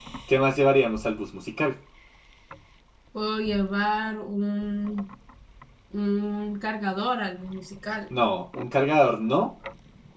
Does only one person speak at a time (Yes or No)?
Yes